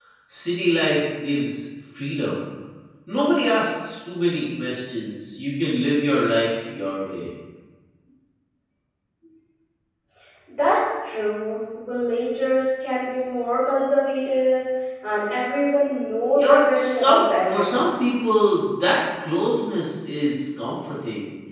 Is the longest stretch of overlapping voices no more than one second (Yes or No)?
No